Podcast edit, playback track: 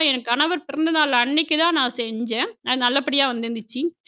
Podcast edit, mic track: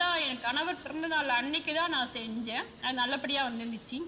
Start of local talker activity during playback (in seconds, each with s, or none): none